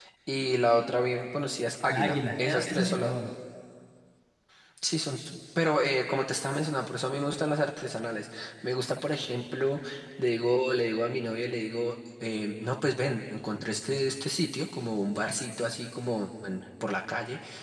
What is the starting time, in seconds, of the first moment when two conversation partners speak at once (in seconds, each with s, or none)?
1.9 s